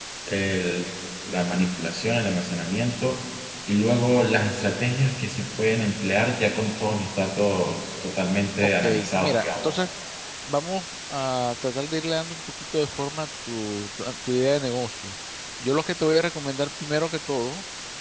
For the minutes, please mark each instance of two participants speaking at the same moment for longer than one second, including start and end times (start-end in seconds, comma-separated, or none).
8.6-9.8